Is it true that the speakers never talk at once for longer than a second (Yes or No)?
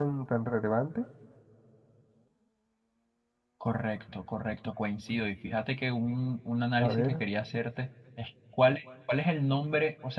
Yes